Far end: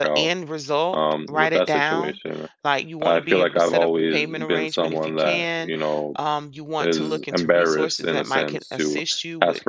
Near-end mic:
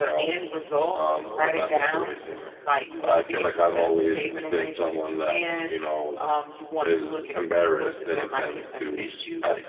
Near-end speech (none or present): none